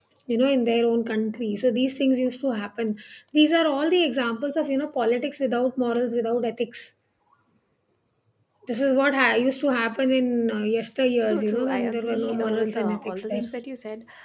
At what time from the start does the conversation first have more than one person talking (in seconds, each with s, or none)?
11.2 s